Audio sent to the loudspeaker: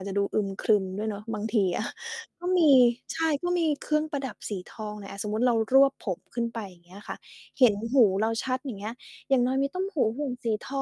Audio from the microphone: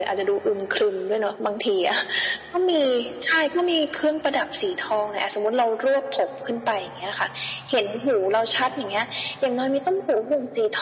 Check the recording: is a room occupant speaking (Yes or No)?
No